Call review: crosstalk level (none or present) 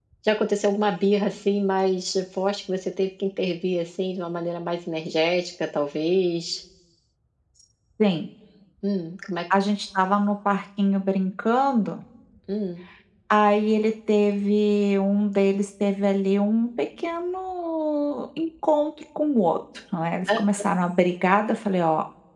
none